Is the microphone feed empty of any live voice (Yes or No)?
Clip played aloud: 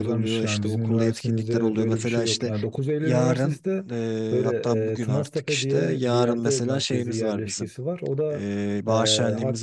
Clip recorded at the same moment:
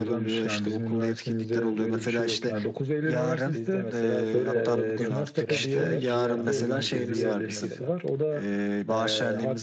No